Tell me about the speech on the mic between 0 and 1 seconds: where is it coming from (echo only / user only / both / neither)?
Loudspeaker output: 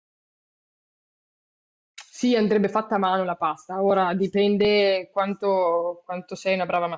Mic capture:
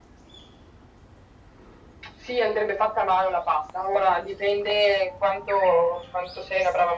neither